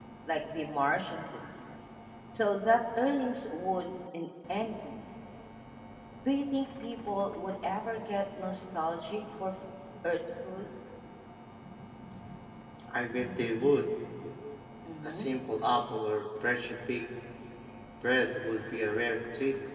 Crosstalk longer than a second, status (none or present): none